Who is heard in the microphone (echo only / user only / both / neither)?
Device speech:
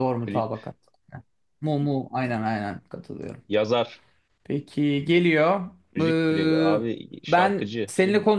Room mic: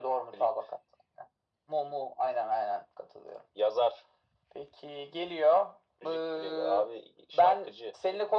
echo only